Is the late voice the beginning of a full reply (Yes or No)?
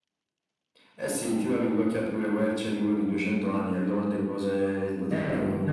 Yes